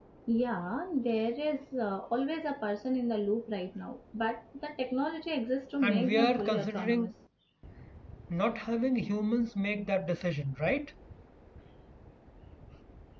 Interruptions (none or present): present